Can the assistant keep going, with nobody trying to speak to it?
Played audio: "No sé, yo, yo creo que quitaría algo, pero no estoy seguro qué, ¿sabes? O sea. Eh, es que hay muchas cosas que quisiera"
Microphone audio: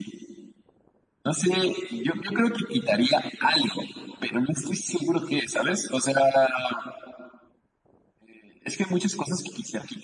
Yes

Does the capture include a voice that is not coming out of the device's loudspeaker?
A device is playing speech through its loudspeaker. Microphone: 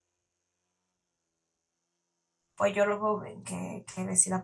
Yes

